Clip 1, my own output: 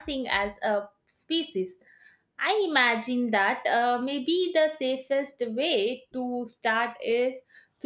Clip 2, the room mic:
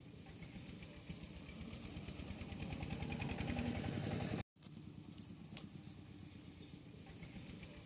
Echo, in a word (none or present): none